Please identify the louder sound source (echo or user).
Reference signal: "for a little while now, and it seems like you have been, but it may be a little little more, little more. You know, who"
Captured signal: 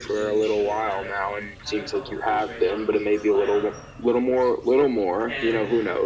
echo